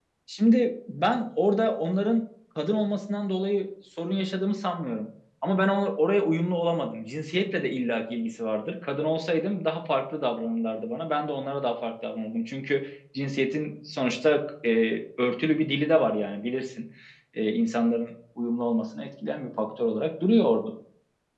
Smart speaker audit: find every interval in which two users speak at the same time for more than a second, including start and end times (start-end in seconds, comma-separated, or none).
none